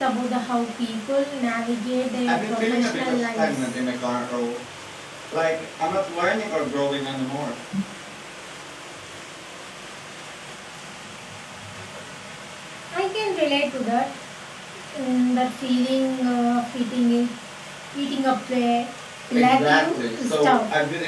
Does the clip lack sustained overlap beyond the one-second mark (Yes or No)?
No